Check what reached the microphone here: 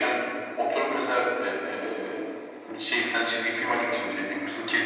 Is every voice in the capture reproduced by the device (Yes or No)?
Yes